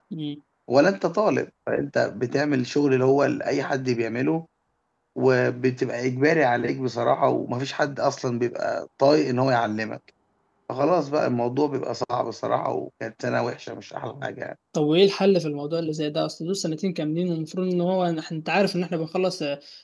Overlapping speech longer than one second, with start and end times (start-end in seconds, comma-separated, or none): none